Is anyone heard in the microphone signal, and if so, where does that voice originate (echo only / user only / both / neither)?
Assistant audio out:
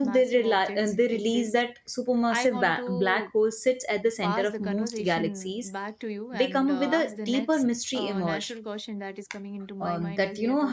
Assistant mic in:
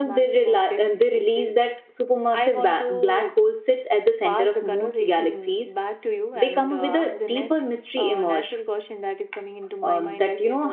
echo only